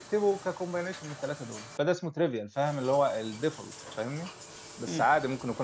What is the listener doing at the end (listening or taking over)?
listening